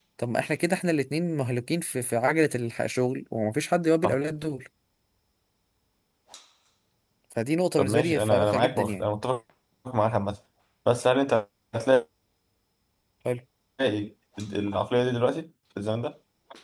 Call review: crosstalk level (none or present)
present